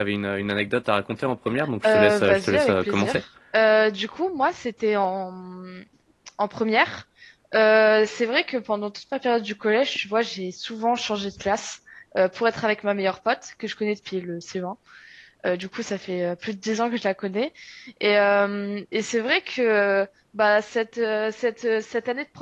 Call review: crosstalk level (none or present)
present